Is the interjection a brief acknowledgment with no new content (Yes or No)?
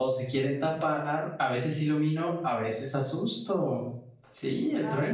No